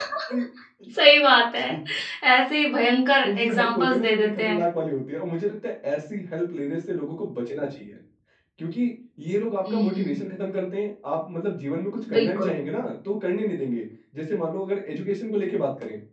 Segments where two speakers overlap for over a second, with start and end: 3.2-4.6

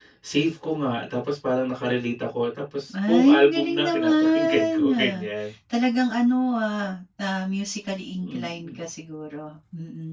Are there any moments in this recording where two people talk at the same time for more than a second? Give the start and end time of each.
3.1-5.2

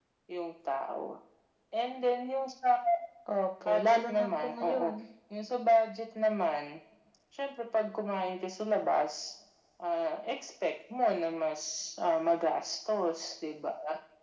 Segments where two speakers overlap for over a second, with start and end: 3.7-4.9

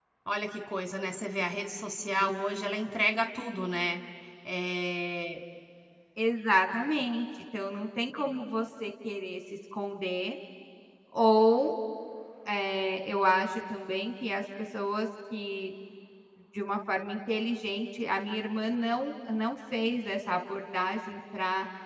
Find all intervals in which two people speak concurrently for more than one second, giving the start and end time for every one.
none

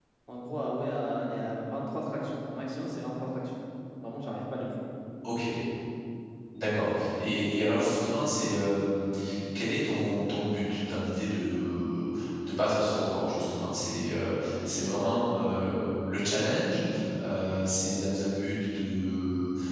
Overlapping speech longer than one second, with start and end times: none

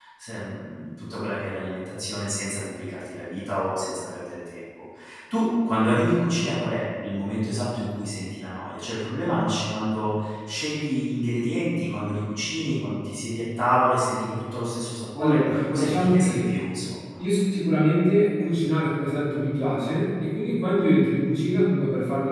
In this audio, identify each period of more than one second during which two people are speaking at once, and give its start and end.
15.2-16.5

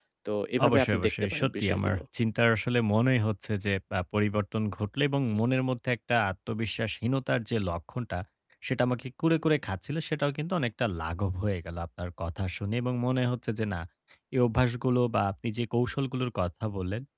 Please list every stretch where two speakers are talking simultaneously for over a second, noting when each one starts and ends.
0.7-2.0

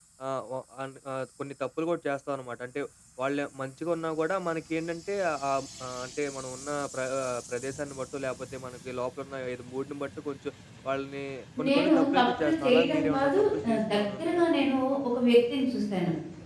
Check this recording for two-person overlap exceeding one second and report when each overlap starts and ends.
11.7-14.4

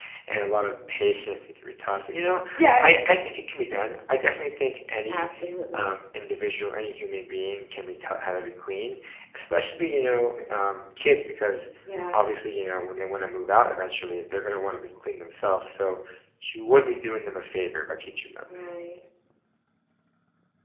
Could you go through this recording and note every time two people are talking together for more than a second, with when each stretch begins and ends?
none

